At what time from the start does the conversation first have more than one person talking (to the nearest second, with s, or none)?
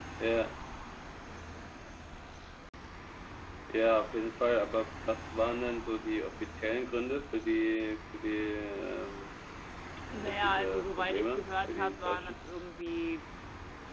10 s